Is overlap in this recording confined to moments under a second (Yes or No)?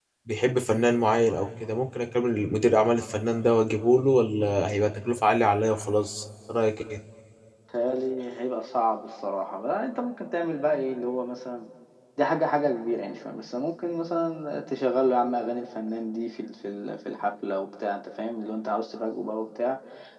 Yes